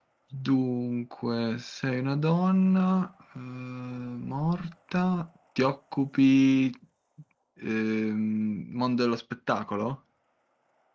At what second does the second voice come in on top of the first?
none

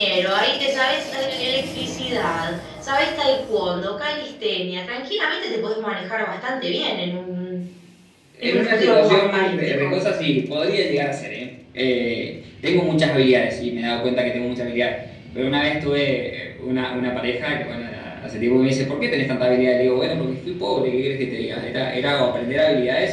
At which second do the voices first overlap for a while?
8 s

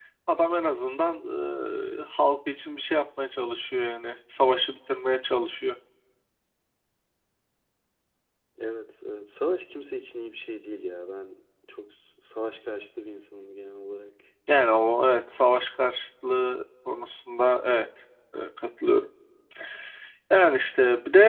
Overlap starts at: none

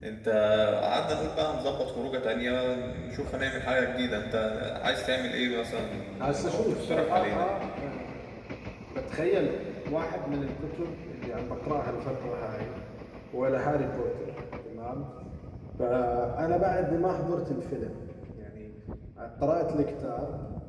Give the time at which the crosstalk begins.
6 s

